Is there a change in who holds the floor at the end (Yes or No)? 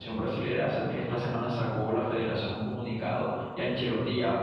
No